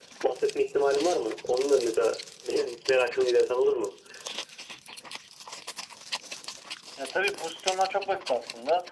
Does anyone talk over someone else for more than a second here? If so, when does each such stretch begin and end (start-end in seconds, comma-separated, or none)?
none